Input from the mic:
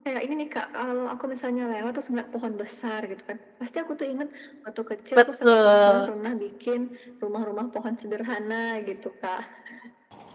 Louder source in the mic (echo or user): user